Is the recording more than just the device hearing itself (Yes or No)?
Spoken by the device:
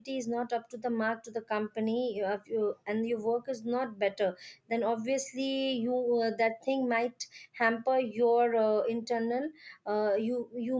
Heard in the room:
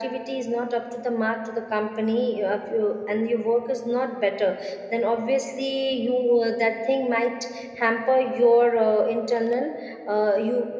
No